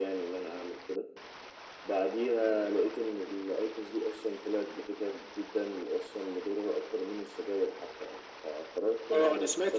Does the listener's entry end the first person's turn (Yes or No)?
Yes